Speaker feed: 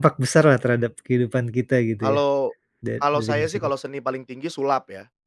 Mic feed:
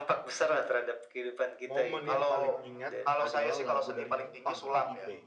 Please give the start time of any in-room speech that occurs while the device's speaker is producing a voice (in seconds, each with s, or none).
1.6 s